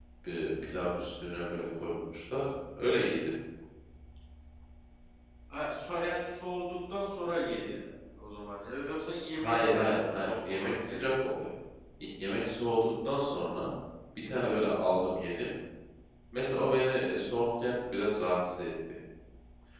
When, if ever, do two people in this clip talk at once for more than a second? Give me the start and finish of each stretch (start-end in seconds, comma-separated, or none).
9.3-11.2